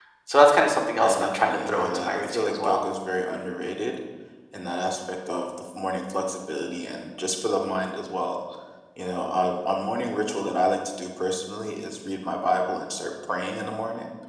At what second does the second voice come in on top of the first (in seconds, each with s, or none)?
1.0 s